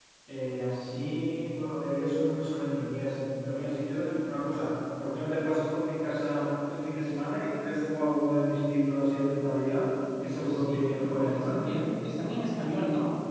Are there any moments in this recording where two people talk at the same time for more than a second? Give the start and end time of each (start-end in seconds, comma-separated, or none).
10.3-11.7